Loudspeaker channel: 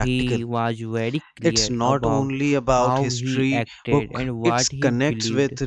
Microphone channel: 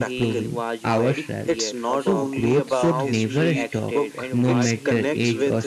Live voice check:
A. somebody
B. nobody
A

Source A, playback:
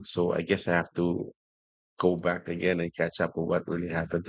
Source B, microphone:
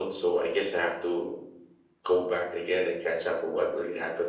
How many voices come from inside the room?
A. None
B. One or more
A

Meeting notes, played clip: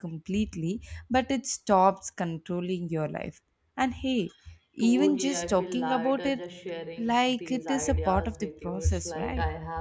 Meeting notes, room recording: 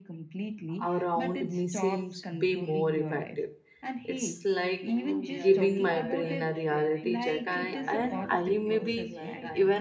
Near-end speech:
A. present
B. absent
A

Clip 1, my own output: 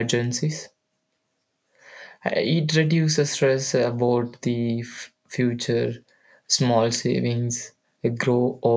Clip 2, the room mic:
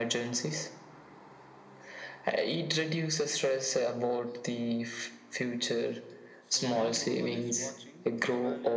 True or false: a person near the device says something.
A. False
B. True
B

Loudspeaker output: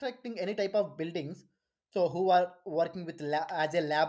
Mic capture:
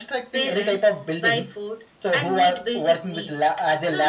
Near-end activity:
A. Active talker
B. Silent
A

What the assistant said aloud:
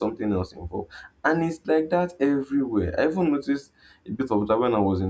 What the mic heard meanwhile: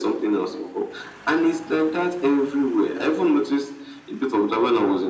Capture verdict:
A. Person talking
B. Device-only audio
B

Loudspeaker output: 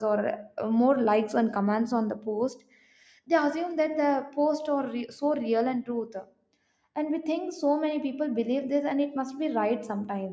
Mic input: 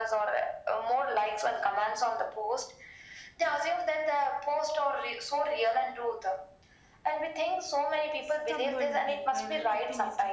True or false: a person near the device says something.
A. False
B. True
B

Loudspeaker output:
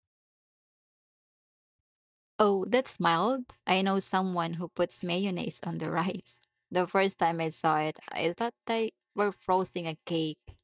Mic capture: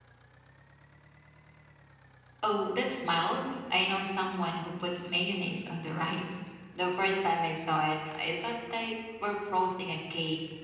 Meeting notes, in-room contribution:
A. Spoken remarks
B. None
B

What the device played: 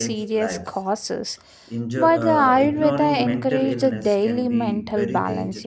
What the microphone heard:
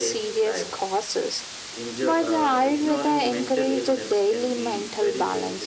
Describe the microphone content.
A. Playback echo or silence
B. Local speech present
A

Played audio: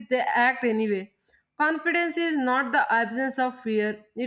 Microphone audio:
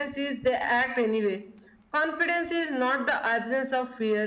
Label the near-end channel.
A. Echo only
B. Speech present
A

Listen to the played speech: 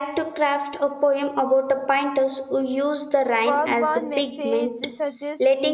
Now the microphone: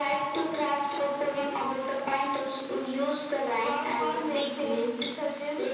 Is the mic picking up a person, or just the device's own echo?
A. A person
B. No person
B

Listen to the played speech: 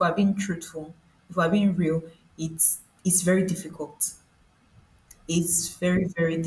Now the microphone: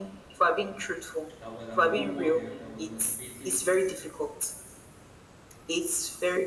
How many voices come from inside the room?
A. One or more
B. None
A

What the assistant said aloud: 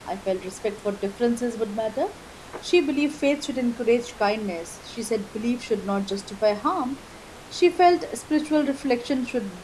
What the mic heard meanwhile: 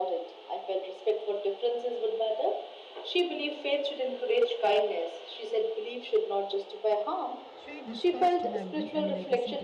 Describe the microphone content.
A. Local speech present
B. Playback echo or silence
A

